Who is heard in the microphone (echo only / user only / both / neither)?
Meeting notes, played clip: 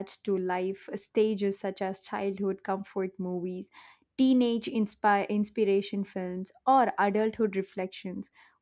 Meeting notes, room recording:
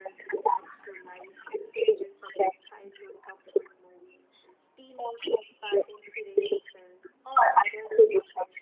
echo only